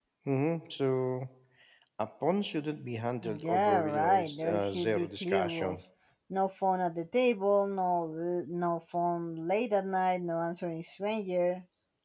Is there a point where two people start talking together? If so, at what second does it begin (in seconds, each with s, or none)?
3.2 s